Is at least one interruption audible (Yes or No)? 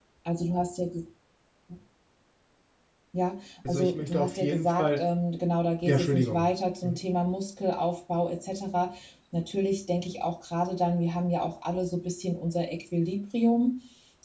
Yes